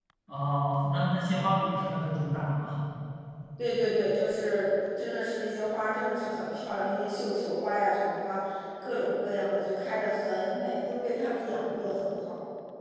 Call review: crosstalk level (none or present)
none